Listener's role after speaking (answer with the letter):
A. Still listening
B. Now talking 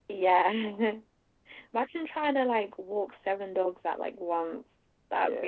B